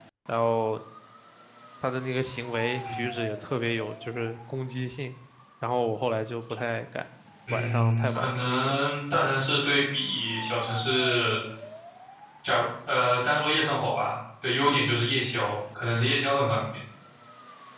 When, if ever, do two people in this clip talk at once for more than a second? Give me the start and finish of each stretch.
7.5-8.8

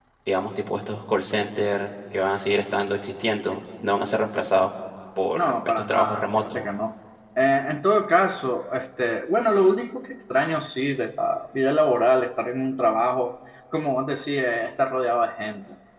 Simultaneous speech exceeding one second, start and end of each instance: 5.3-6.6

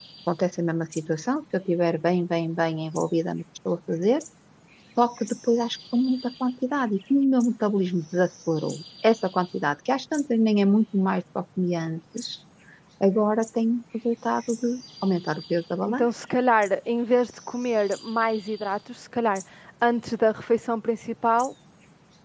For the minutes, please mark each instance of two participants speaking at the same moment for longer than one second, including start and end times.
none

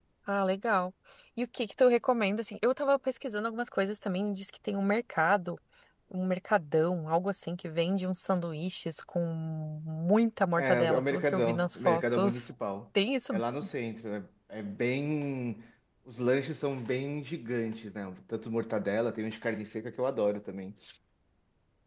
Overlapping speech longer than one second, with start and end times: 10.6-12.5

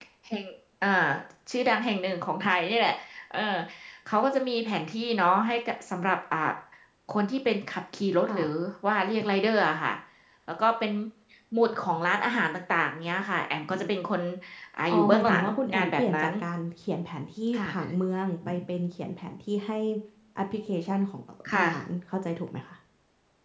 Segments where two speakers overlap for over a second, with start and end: 14.9-16.3

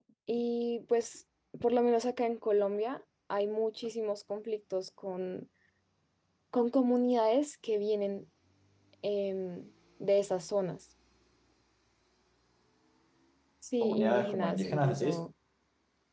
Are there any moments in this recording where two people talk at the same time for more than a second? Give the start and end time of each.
13.8-15.2

